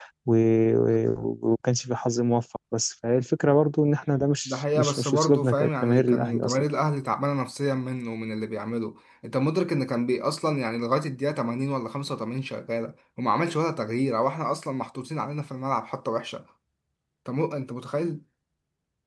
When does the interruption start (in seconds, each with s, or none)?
4.4 s